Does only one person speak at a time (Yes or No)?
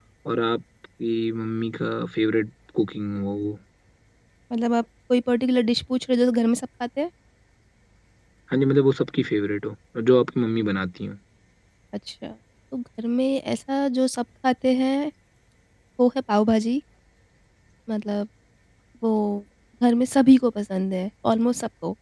Yes